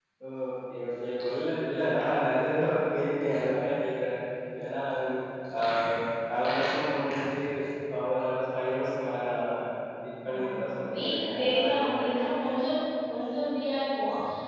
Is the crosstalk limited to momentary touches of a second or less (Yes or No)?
No